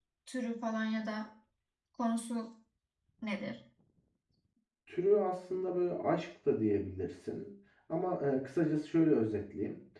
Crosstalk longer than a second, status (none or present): none